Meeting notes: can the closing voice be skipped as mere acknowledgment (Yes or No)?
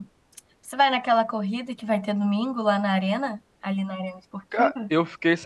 No